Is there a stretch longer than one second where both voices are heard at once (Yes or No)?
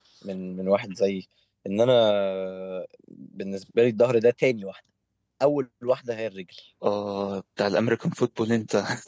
No